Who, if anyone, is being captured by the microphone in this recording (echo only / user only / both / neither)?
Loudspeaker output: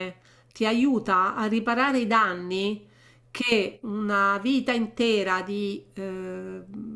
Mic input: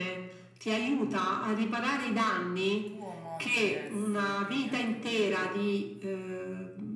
both